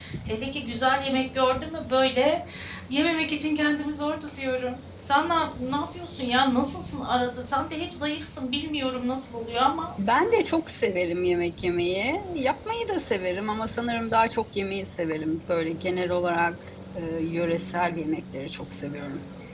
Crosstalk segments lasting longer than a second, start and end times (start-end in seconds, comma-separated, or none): none